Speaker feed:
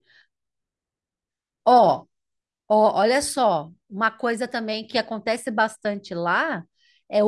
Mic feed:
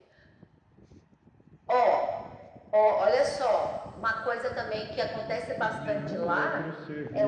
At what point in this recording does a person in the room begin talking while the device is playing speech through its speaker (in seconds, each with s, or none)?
5.8 s